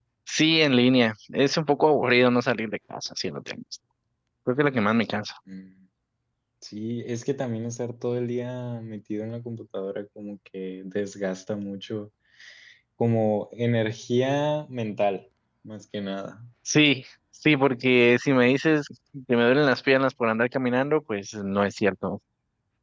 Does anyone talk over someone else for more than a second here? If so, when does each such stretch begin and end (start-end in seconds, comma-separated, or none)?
none